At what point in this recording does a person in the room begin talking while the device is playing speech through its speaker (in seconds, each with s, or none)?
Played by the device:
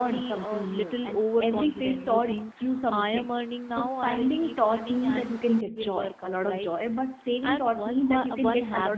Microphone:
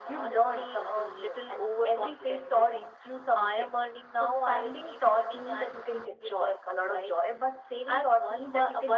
none